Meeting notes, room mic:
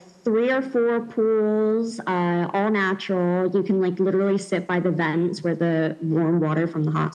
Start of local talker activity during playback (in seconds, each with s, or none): none